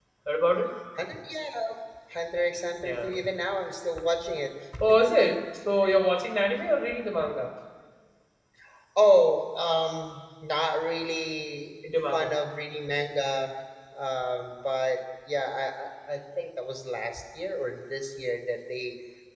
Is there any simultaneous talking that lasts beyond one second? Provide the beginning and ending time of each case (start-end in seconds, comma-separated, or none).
none